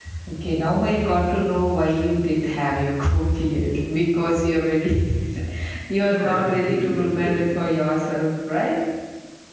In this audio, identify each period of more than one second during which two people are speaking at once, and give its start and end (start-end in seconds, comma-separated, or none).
6.0-7.5